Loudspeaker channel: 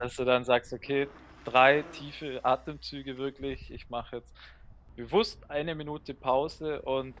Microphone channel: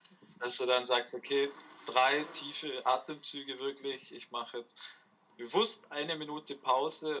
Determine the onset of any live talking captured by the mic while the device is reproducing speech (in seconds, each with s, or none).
none